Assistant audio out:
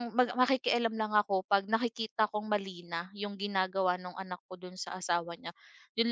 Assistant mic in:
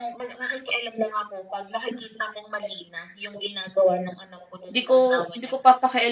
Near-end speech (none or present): present